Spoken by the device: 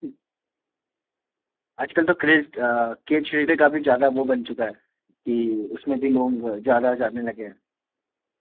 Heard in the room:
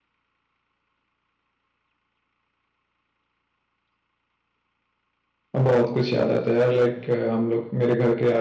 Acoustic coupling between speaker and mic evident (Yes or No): No